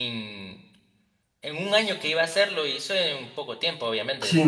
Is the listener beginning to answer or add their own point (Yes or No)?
Yes